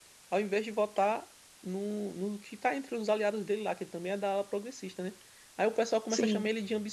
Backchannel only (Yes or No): Yes